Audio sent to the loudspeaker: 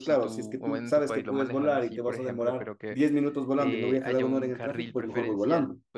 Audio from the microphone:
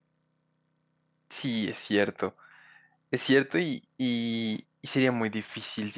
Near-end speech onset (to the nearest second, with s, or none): 1 s